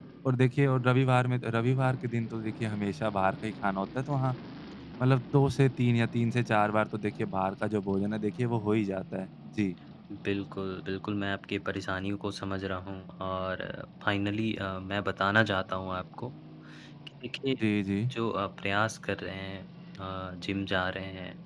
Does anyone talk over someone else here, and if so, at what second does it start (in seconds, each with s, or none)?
none